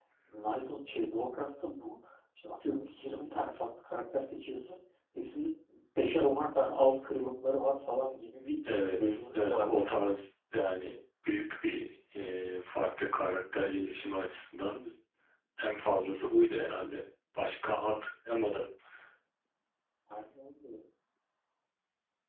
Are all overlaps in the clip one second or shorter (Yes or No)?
No